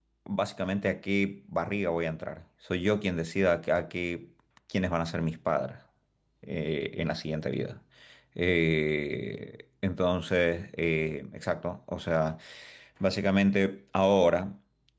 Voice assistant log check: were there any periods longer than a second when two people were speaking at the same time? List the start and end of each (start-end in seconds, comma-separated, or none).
none